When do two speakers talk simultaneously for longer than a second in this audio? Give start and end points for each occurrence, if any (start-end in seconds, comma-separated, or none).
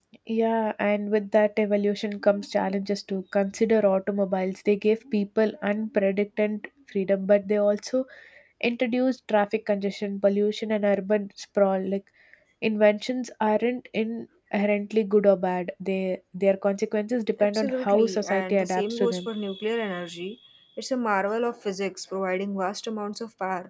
17.4-19.3